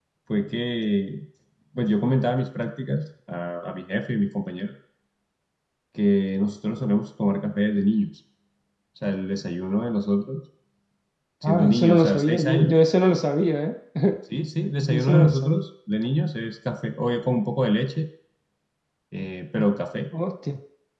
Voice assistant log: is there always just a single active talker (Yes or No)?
No